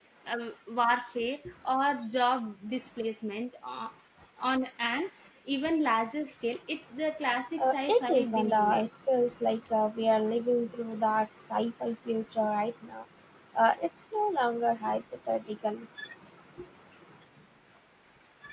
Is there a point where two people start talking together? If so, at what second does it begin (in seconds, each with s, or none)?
7.6 s